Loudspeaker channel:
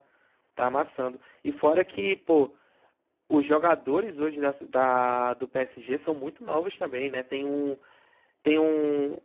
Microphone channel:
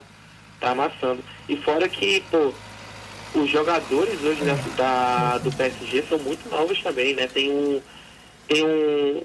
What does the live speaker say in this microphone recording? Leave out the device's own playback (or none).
é, sim, sim.